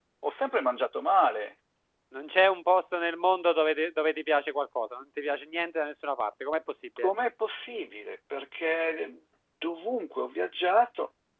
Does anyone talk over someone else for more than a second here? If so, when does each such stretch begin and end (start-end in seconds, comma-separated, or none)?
none